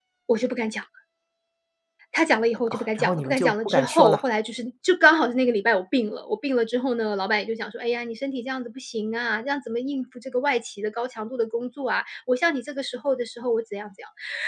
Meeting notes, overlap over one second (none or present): present